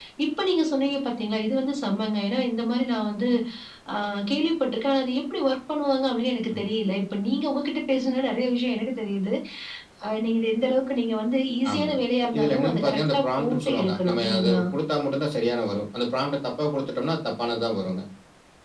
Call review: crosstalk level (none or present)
present